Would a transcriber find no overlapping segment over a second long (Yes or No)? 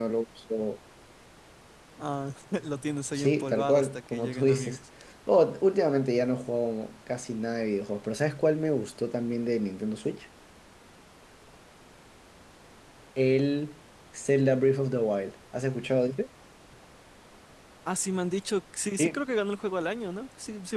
No